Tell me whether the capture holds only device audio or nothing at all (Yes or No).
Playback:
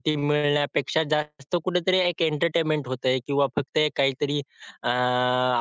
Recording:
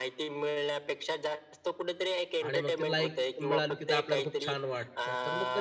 No